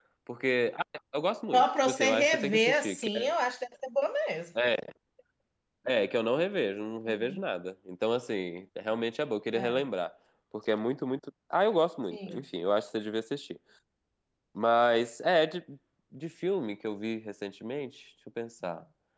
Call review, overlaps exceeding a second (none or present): present